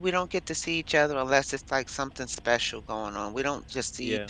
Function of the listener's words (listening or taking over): listening